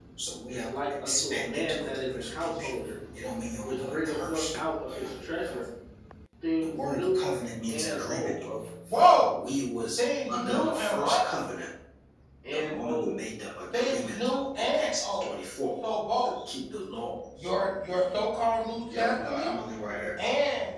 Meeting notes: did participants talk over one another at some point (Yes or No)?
Yes